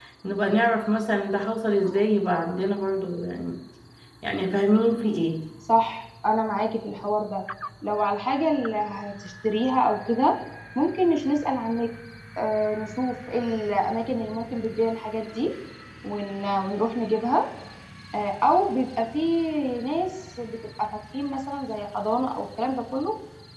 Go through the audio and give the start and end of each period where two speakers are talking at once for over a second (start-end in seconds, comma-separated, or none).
none